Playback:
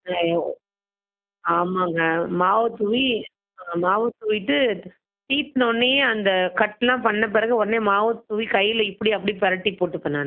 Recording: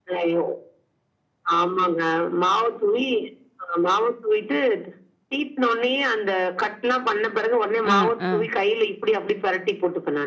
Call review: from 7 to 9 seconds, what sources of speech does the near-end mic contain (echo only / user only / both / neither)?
both